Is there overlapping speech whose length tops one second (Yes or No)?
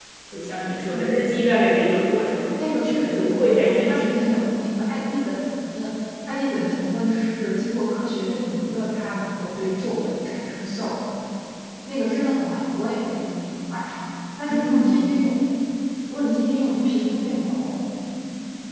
Yes